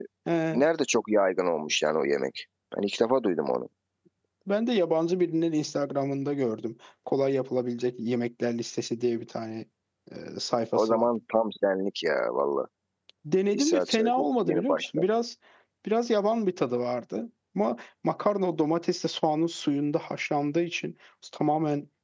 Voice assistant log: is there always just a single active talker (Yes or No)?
No